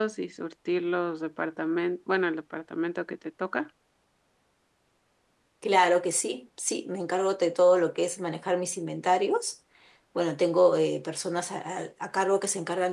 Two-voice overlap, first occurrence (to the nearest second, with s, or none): none